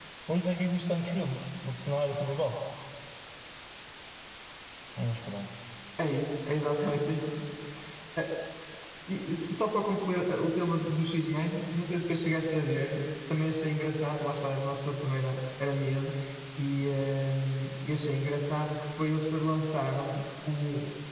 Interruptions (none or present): none